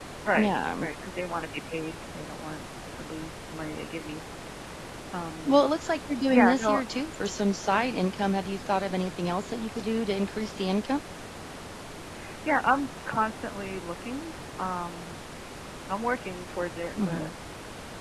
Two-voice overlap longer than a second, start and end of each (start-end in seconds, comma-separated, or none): none